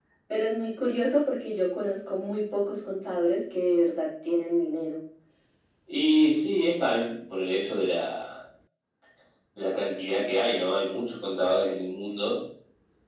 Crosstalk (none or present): none